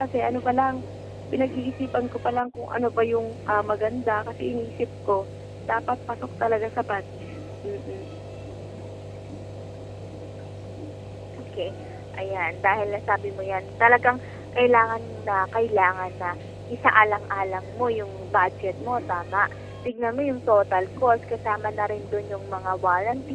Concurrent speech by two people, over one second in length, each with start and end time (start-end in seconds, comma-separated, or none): none